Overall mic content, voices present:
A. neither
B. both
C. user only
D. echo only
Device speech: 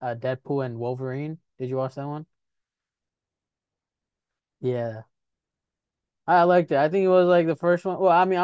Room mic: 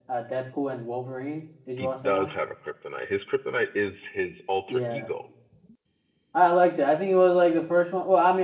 B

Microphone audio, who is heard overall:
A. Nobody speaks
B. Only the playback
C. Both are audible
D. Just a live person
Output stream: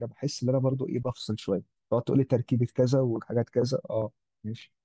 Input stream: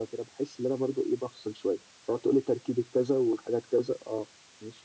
B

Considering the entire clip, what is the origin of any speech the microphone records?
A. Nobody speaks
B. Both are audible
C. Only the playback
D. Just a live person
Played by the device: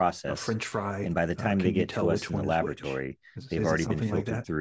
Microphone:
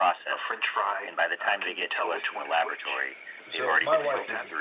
B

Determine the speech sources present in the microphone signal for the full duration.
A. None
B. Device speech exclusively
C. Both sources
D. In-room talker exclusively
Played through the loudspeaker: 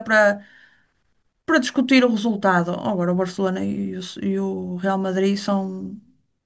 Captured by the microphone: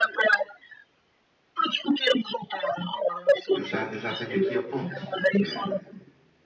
C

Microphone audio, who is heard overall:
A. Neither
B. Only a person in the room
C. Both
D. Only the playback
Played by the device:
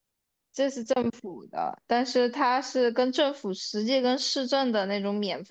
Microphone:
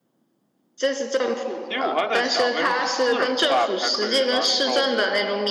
C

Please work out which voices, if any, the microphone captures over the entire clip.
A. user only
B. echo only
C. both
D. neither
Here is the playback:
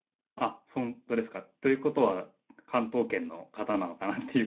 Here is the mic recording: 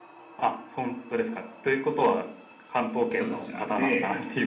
C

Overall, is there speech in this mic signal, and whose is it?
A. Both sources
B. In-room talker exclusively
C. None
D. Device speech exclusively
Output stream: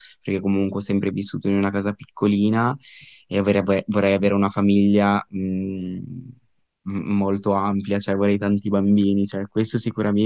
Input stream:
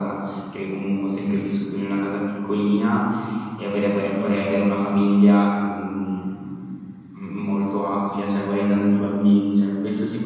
D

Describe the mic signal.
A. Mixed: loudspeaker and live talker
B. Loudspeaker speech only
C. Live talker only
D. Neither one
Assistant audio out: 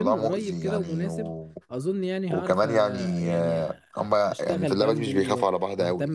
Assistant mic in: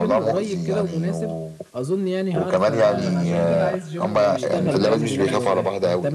A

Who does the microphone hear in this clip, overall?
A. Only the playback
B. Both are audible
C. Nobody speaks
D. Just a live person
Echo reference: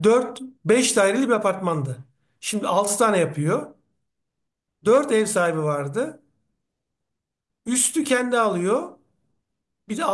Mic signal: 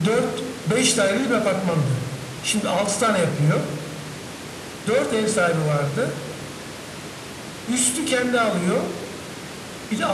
A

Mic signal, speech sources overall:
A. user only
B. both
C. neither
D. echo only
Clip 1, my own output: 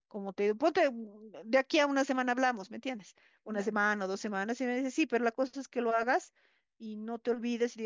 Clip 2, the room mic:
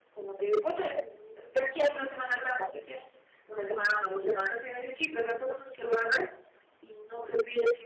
D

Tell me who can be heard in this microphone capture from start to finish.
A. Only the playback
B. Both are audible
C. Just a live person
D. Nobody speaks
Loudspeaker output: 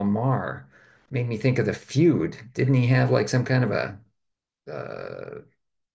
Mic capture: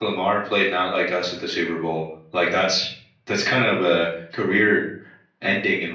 C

